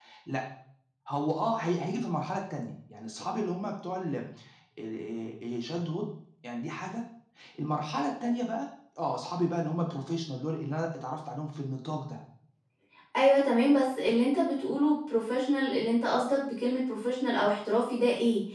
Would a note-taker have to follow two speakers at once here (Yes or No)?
No